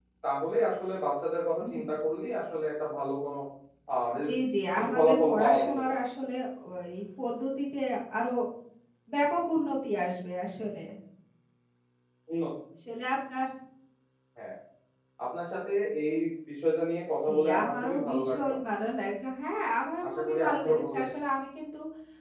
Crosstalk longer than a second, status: present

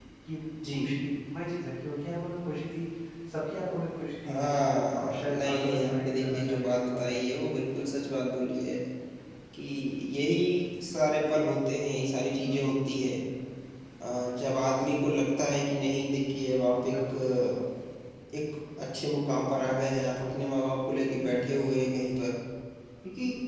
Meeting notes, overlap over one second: present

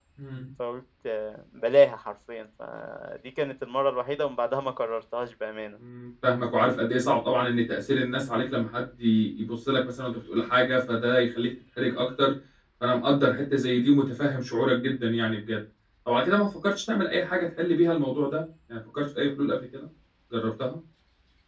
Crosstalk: none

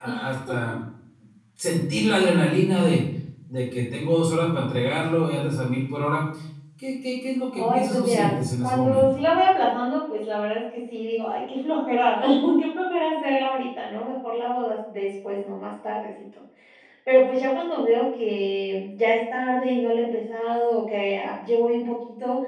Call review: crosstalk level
present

